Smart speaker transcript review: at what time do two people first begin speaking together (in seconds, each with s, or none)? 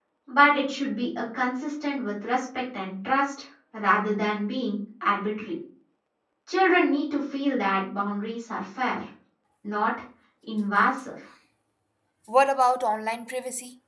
none